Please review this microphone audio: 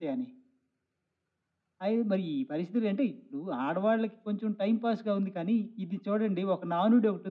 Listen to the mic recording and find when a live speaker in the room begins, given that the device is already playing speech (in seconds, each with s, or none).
none